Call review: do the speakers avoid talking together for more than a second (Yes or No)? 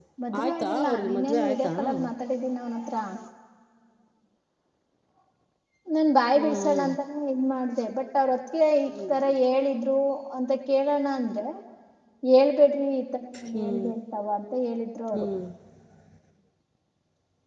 No